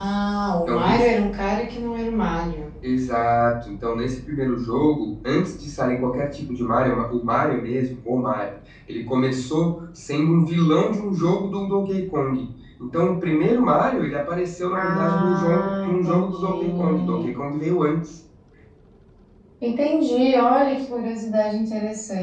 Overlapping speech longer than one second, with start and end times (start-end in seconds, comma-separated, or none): 14.8-17.3